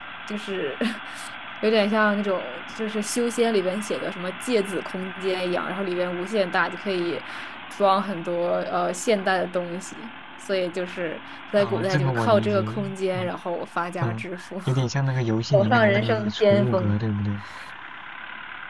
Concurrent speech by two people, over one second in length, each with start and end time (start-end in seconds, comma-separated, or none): 11.6-13.3, 15.5-17.0